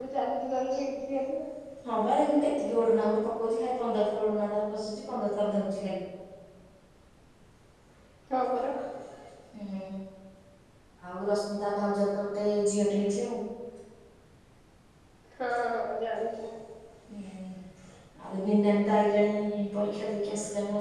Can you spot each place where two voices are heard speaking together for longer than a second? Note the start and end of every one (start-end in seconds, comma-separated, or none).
none